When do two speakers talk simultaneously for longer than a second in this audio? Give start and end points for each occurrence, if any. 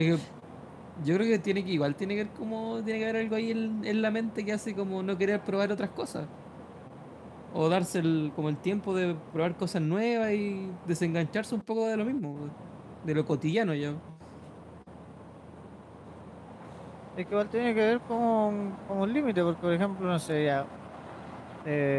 none

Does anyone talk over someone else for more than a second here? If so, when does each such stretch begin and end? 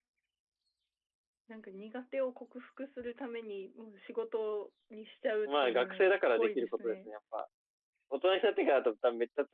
5.5-7.1

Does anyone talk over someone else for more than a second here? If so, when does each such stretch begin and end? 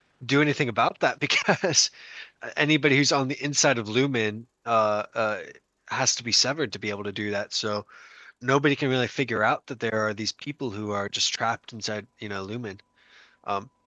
none

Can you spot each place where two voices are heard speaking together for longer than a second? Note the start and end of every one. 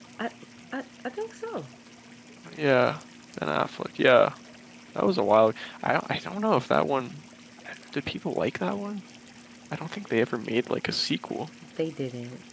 none

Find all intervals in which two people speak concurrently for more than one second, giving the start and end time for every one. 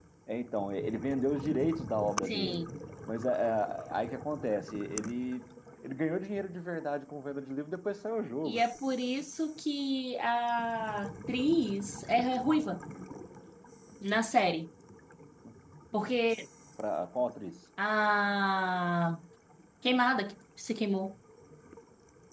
none

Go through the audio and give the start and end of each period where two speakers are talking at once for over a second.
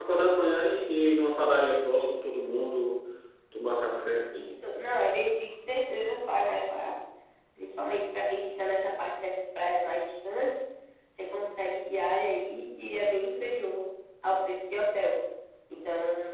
none

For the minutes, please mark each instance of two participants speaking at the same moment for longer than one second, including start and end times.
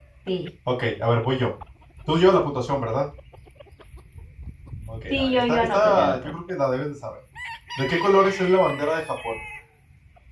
5.1-6.3

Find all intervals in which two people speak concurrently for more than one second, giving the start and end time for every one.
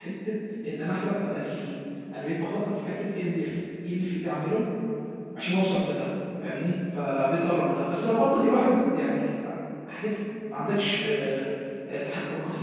none

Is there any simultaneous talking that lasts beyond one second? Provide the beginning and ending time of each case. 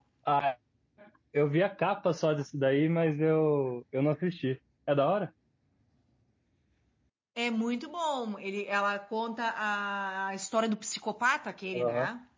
none

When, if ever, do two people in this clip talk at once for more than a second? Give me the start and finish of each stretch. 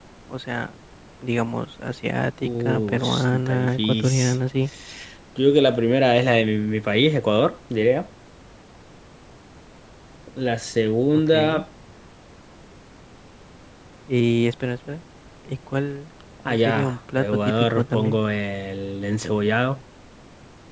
2.4-4.3, 16.5-18.2

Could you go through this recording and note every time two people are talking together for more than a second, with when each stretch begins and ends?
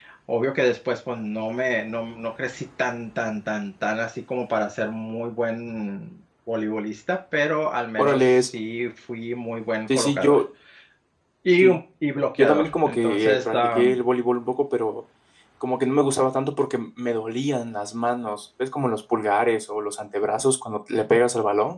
12.4-14.0

